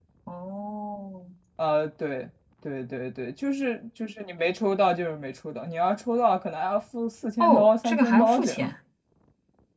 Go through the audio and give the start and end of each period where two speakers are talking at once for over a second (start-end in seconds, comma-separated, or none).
7.4-8.7